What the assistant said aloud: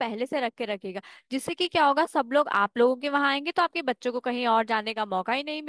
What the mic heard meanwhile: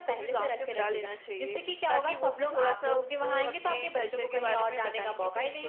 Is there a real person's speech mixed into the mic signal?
Yes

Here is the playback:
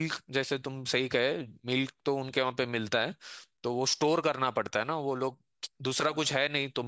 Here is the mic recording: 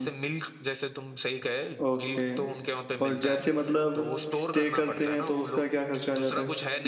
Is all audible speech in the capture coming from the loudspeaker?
No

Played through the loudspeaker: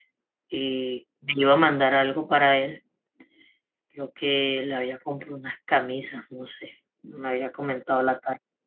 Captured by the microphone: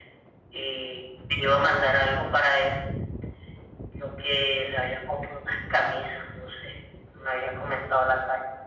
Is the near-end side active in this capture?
No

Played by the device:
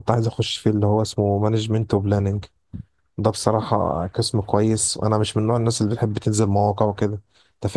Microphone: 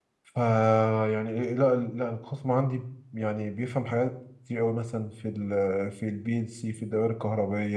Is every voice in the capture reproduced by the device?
No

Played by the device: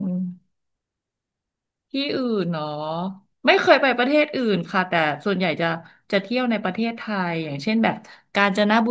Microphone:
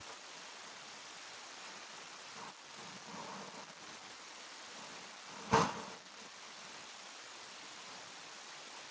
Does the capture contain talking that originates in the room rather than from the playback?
No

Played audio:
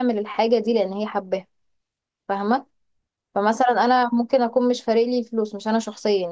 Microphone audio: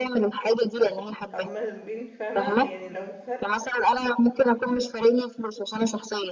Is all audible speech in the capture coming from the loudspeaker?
No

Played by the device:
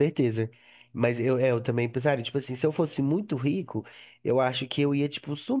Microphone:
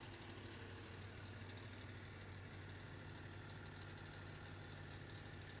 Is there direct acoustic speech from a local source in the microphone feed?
No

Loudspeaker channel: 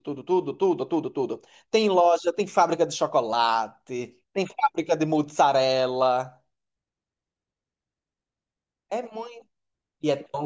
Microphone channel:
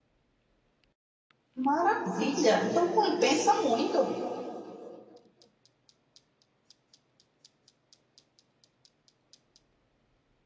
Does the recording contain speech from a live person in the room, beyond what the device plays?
Yes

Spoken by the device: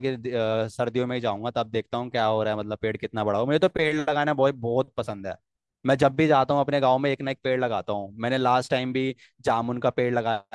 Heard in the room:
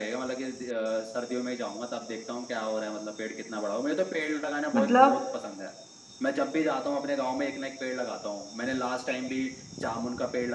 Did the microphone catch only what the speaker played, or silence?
No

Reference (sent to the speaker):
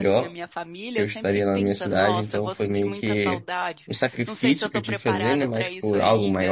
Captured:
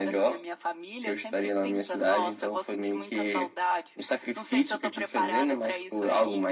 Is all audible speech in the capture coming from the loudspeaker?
Yes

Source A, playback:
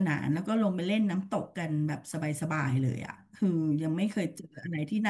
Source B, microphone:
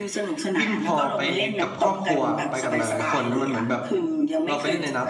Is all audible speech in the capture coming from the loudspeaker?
No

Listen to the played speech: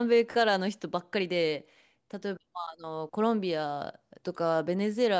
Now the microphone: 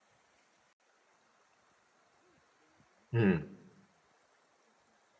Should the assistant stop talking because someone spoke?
Yes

